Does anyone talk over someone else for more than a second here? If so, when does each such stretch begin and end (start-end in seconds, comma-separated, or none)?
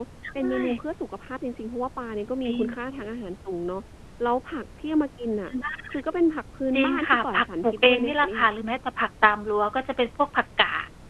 6.8-8.4